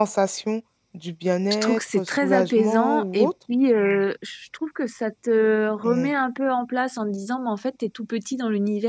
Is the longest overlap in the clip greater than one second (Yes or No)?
Yes